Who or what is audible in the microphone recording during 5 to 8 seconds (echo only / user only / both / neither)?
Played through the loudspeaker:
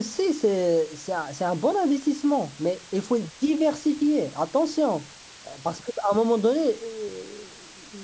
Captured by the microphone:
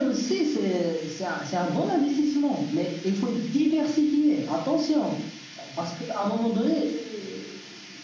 echo only